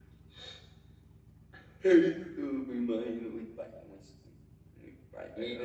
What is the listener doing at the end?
taking over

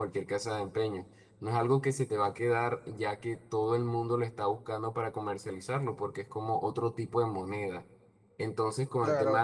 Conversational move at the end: listening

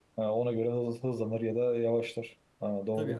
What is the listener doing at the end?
taking over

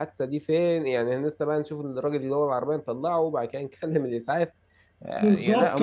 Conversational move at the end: taking over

